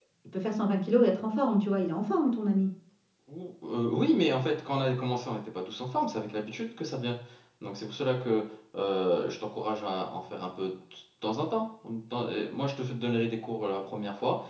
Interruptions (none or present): none